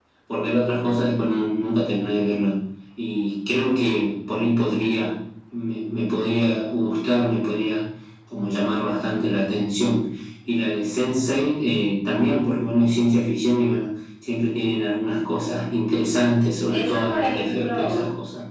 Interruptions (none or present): present